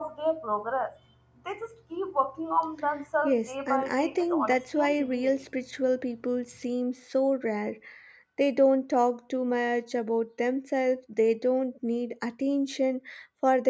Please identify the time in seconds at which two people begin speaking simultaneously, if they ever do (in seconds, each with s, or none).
3.2 s